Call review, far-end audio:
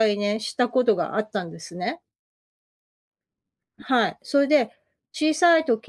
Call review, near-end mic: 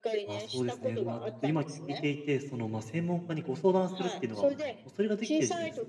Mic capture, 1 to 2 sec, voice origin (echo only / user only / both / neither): both